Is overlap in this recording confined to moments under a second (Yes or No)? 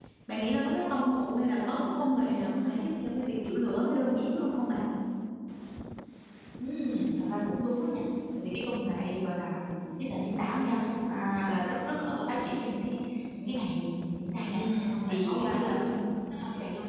No